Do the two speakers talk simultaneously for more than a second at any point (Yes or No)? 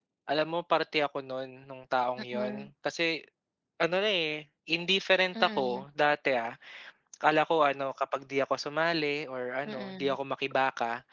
No